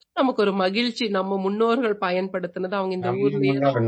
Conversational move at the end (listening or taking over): taking over